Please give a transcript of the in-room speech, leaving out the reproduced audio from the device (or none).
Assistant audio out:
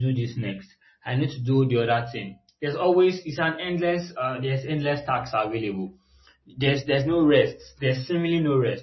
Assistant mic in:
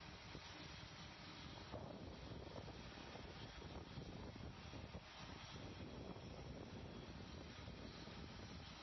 none